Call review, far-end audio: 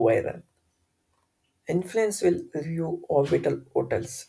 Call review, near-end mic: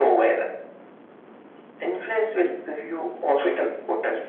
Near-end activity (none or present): none